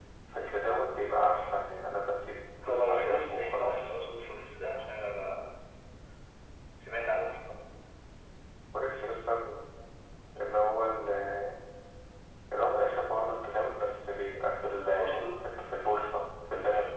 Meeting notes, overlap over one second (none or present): present